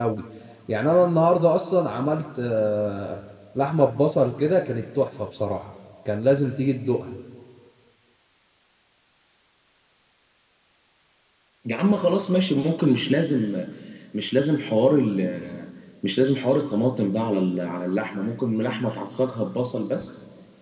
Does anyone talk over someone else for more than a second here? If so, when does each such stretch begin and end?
none

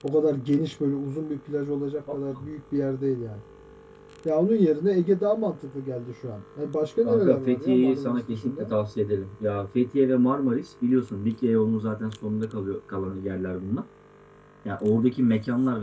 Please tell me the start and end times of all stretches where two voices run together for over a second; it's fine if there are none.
7.0-8.7

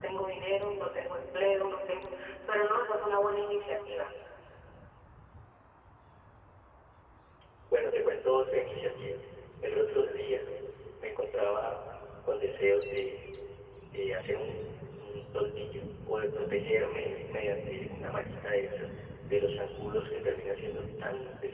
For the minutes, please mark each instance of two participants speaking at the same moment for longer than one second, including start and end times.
none

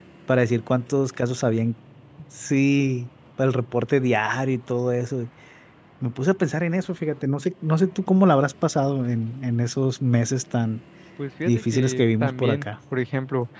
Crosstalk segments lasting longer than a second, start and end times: 11.4-12.7

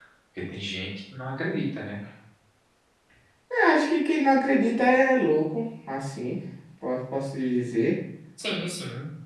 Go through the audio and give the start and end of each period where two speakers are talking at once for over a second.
none

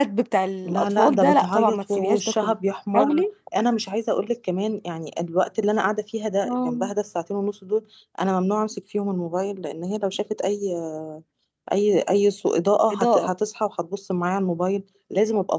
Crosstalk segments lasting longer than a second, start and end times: 0.6-2.5

